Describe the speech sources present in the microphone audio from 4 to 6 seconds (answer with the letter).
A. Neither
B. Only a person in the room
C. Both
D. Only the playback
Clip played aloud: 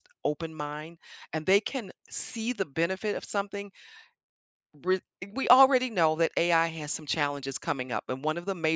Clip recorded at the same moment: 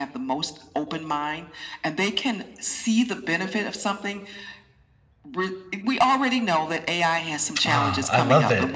D